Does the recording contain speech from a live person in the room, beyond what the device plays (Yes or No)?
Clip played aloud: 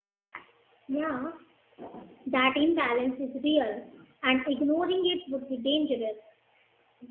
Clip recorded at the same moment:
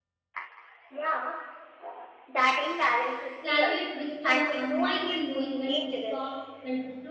Yes